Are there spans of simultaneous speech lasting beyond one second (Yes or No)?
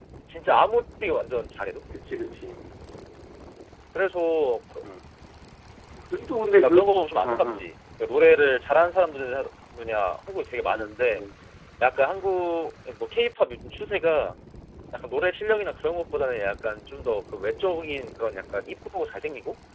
No